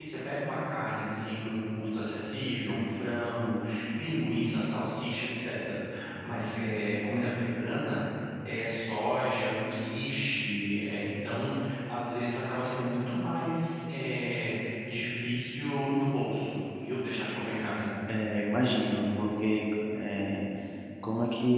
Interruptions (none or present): none